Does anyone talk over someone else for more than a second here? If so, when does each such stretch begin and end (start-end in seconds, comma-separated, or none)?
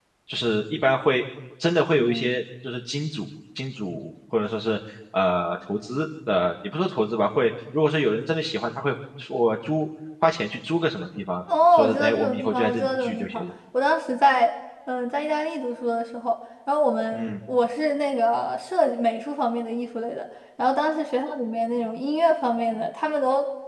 11.7-13.4